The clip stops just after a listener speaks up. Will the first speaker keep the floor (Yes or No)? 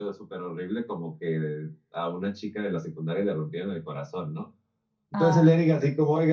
Yes